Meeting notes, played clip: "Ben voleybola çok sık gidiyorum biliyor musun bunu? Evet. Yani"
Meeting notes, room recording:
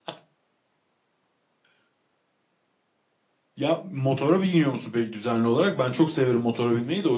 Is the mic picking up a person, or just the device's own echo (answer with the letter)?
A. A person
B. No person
A